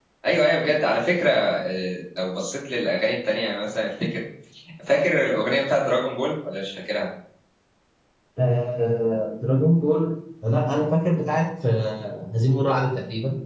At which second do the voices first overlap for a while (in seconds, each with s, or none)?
none